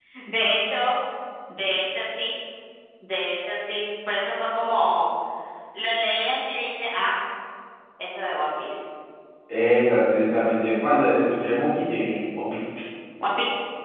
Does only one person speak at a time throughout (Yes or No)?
Yes